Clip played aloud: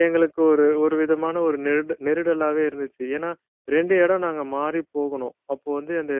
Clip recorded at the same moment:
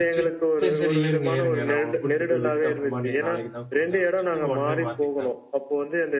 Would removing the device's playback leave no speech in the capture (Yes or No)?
No